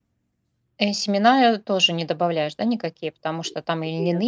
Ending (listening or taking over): listening